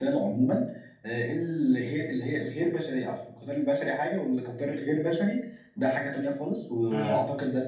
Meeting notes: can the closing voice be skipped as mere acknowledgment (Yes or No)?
Yes